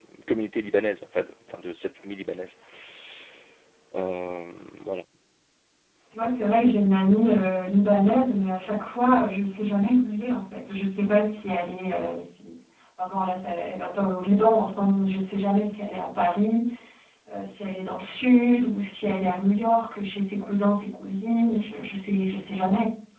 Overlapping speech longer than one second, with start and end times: none

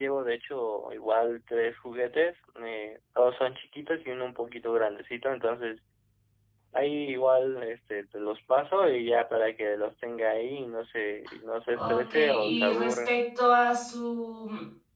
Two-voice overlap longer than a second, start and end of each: 11.7-13.2

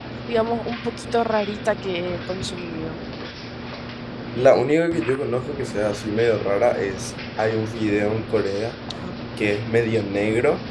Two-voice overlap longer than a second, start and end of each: none

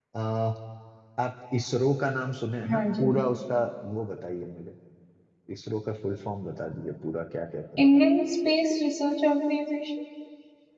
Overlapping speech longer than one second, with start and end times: none

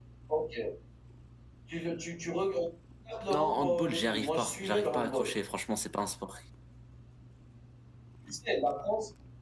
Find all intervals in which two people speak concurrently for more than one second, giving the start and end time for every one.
3.3-5.2

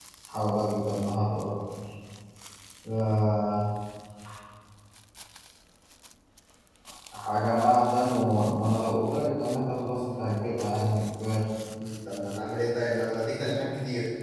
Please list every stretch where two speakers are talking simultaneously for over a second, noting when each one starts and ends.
none

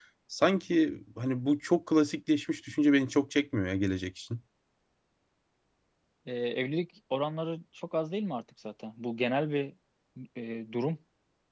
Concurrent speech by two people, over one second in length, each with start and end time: none

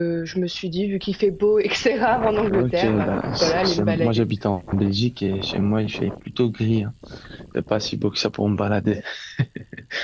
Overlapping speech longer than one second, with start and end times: 2.5-4.3

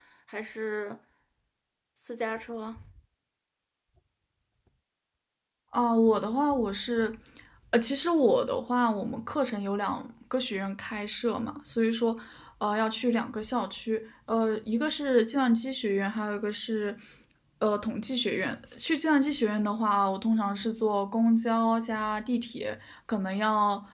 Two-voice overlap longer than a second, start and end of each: none

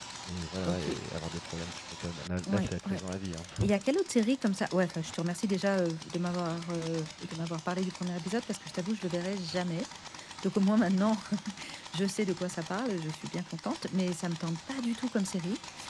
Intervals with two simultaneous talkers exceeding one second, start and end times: none

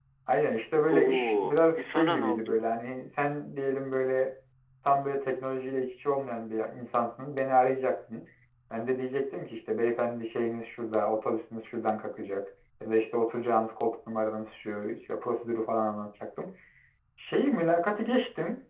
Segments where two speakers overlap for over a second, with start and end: 0.9-2.5

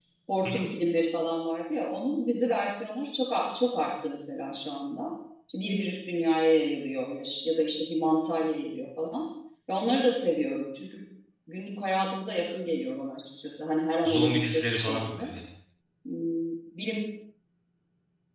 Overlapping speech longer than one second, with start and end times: 14.0-15.3

